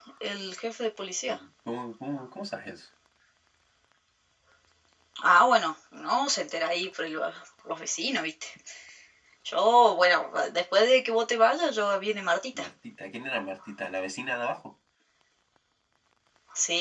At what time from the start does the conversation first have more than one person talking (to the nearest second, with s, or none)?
none